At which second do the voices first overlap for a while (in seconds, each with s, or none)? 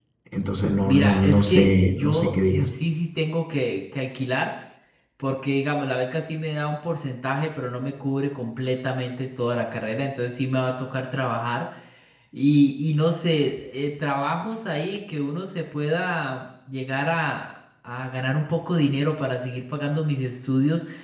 0.9 s